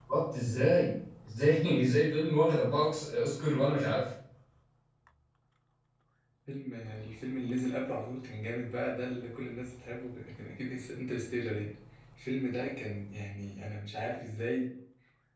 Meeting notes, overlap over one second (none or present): none